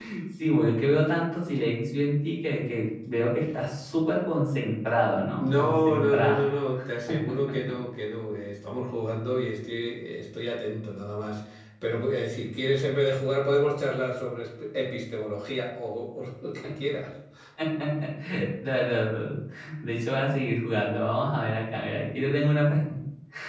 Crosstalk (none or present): present